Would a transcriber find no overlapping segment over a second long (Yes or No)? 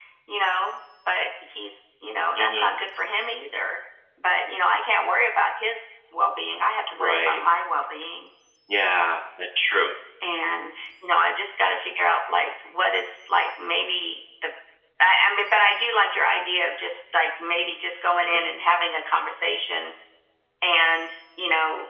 Yes